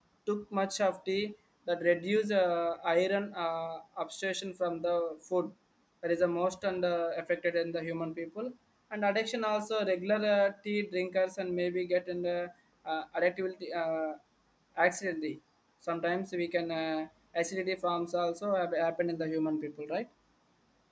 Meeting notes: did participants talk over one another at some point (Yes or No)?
No